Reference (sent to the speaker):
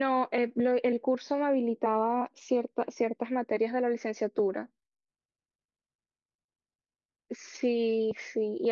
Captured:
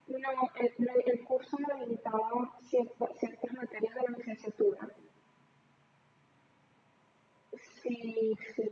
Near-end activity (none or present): none